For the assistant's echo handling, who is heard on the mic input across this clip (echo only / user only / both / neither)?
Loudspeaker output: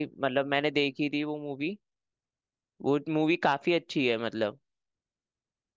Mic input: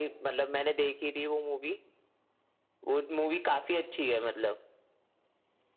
echo only